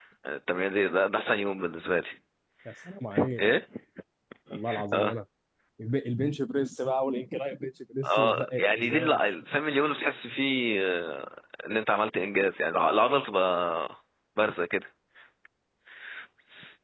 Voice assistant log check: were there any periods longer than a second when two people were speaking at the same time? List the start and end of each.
8.0-9.4

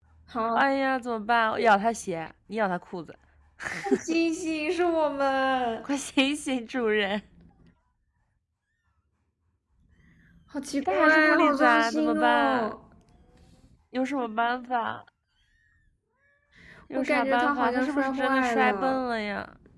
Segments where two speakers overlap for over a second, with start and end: 10.8-12.7, 17.0-19.0

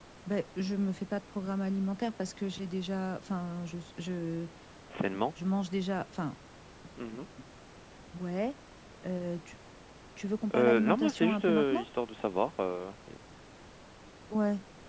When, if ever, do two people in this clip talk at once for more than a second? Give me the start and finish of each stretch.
10.5-11.8

